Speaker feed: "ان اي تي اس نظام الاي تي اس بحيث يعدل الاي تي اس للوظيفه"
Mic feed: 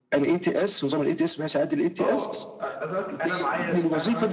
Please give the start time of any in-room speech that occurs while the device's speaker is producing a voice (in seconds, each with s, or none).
2.0 s